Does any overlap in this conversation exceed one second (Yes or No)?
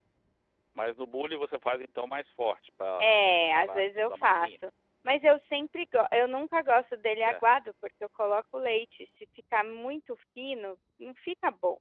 Yes